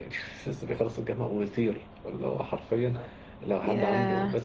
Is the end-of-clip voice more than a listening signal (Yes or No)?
No